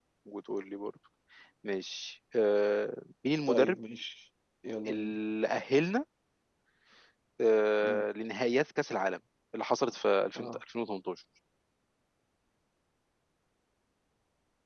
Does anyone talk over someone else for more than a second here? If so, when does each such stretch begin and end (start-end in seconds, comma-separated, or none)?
none